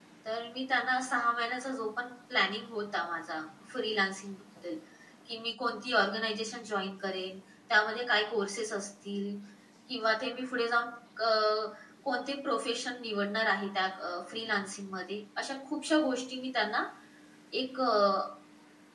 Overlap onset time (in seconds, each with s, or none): none